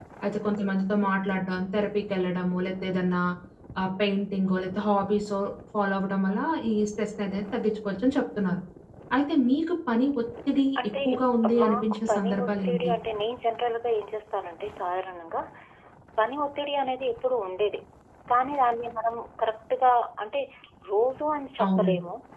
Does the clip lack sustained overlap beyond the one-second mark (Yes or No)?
No